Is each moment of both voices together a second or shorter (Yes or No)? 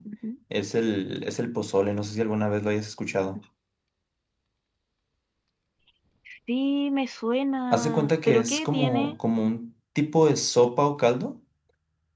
No